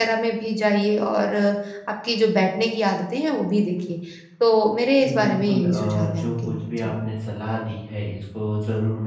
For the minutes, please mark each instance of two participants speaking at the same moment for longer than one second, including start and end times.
5.0-6.9

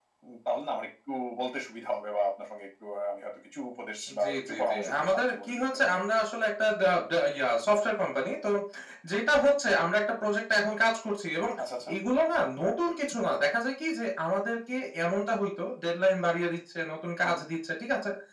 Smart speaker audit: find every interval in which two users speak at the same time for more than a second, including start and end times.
4.2-6.0

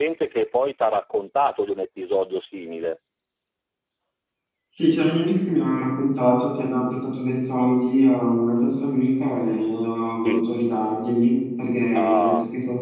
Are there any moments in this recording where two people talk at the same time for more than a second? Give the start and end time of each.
none

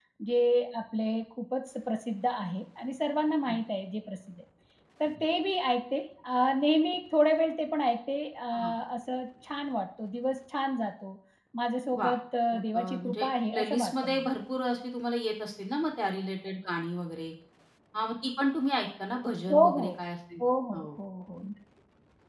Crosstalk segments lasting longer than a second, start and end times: 12.5-14.3

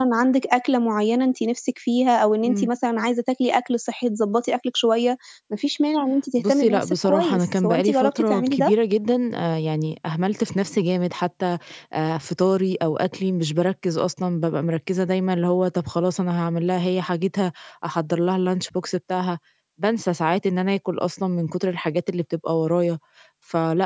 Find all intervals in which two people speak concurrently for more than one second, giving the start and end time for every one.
6.4-8.7

